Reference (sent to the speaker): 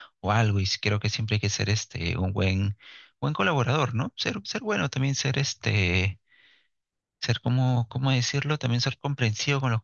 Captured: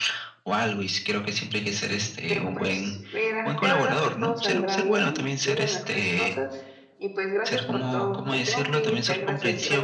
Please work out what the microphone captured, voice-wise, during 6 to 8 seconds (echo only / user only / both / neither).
both